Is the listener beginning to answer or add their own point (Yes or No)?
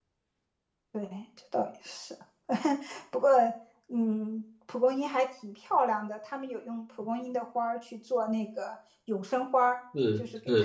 No